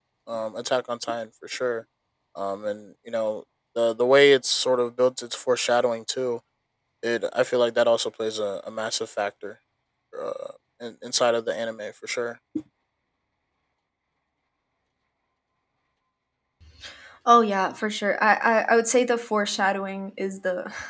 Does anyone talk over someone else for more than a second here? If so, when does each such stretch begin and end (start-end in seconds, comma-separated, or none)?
none